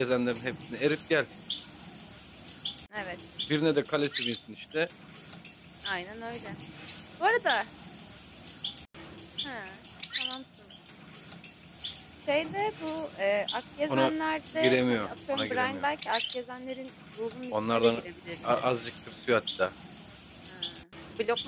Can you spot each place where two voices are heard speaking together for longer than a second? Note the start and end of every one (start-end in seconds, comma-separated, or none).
14.6-15.8